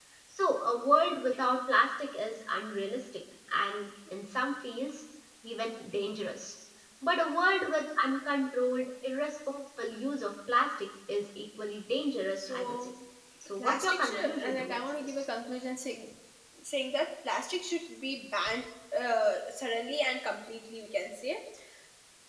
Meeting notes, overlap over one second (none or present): present